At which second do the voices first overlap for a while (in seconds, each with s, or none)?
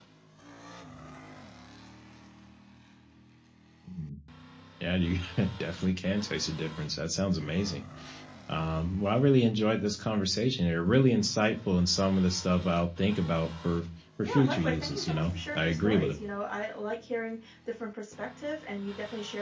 14.2 s